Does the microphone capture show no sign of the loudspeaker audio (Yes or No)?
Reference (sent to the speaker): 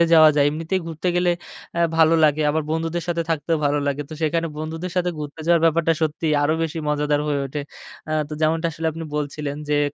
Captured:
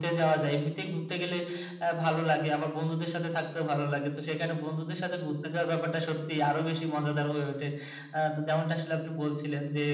No